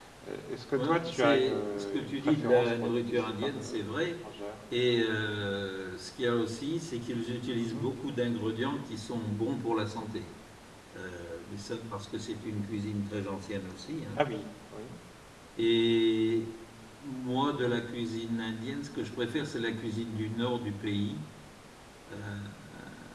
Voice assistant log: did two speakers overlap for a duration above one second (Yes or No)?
Yes